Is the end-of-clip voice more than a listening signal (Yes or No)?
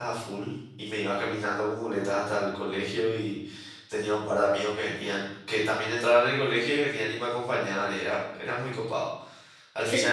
Yes